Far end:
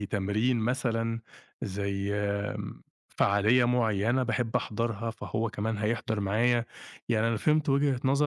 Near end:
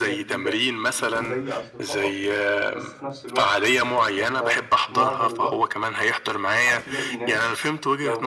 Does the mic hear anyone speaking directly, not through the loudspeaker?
Yes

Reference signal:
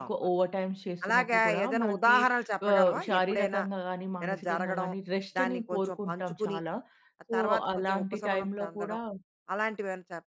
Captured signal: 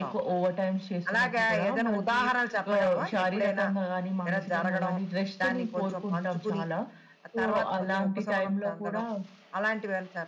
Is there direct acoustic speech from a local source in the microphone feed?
No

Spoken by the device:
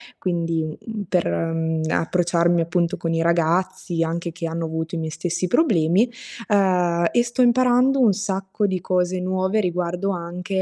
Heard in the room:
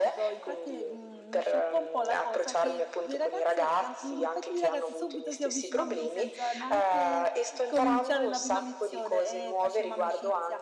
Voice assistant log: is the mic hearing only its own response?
No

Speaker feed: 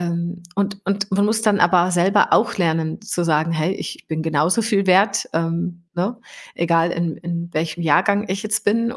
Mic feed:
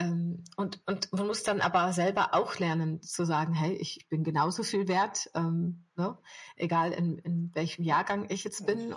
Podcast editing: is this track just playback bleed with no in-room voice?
No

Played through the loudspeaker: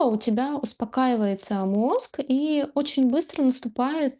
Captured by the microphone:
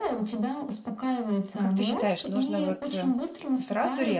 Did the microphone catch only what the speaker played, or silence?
No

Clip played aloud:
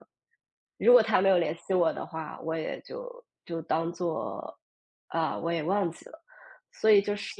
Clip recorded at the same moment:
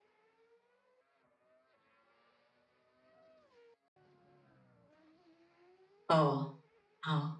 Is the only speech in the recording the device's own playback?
No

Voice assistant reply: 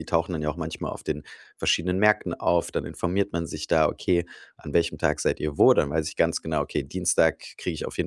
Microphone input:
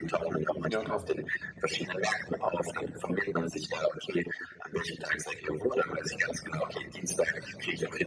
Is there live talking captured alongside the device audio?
Yes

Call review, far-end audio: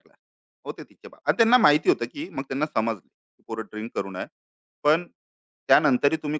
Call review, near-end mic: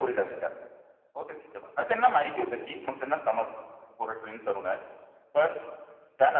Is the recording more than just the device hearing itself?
No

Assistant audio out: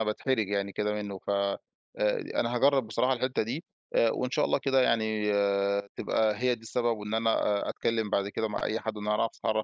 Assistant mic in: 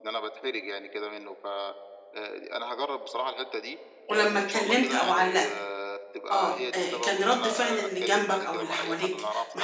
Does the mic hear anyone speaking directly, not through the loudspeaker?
Yes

